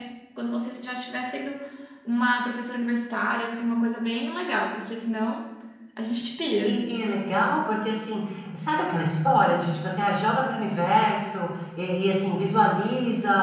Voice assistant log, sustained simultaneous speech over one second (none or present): none